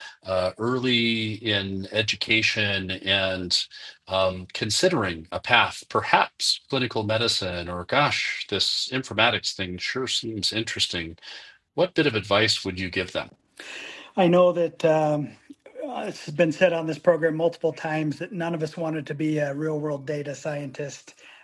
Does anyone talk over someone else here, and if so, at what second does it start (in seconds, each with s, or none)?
none